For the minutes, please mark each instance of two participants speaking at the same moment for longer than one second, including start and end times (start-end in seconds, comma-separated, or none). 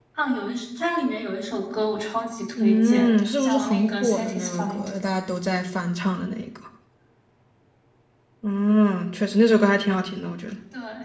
2.5-4.9